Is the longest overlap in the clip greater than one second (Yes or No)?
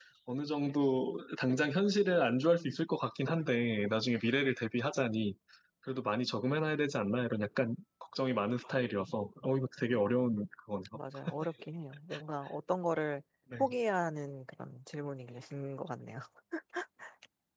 No